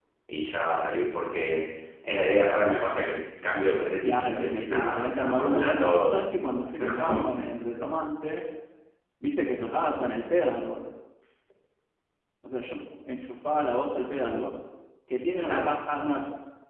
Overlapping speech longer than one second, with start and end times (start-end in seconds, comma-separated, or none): 4.0-6.2